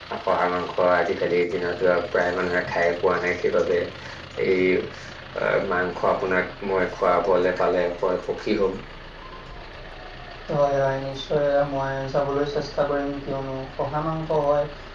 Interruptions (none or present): none